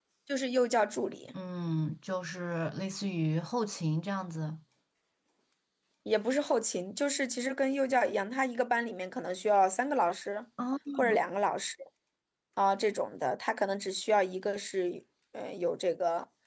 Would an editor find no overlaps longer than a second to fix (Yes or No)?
Yes